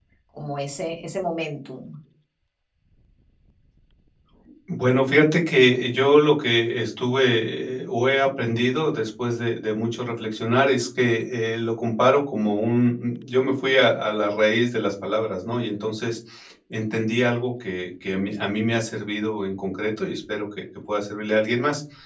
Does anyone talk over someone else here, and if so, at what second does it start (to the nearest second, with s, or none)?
none